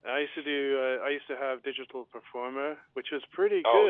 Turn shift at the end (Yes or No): No